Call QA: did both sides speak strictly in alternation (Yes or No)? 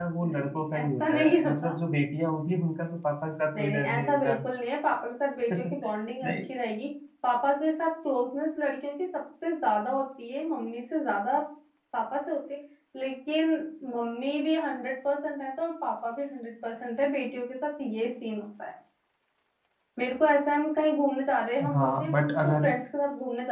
No